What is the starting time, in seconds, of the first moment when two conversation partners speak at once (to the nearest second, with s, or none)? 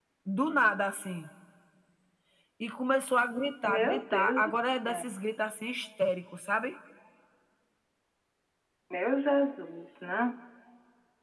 4 s